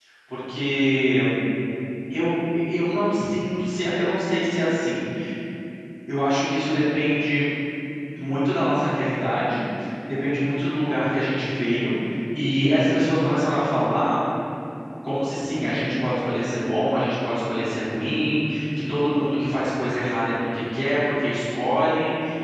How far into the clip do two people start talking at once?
none

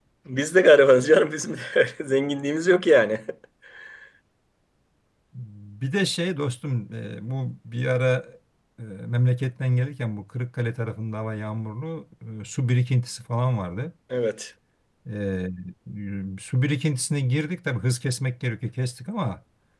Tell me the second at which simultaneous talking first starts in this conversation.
none

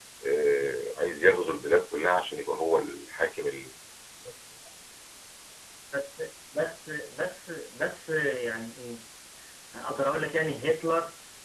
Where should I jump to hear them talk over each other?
none

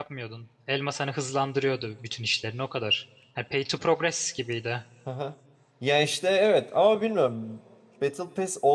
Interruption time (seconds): none

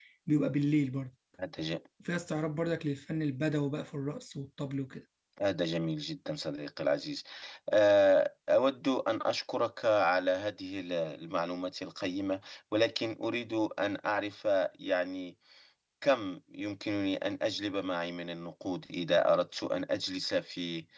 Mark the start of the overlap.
none

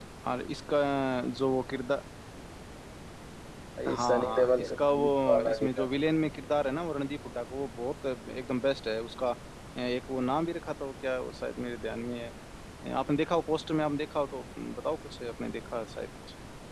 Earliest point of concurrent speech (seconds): 3.9 s

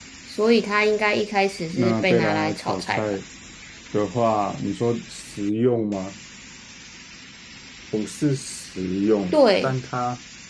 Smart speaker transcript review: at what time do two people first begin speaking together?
1.7 s

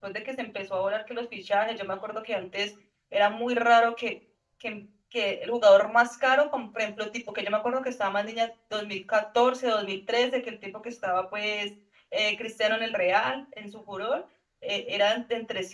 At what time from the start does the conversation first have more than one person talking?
none

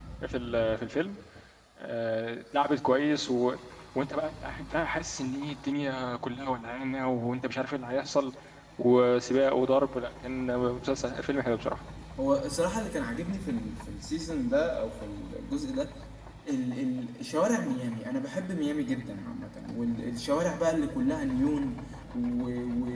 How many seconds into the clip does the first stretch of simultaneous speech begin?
none

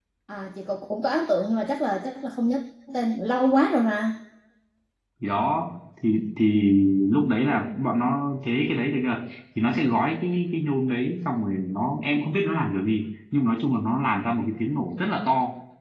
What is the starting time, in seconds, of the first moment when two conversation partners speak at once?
none

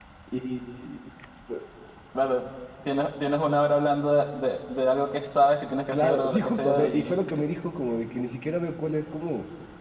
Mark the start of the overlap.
5.9 s

